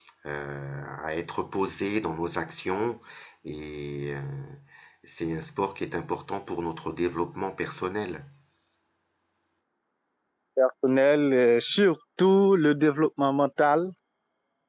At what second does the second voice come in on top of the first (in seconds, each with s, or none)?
none